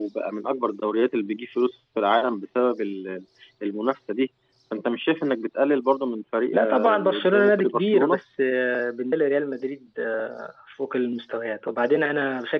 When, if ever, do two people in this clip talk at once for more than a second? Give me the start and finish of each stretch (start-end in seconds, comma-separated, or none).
6.5-8.2